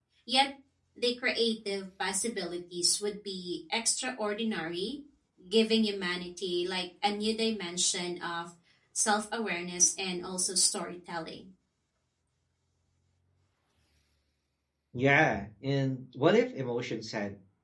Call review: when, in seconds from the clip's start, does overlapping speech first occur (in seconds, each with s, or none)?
none